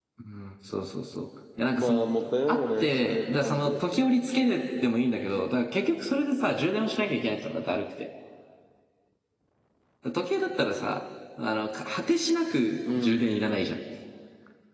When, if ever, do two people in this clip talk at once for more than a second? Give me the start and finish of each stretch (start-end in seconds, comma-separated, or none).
2.5-3.8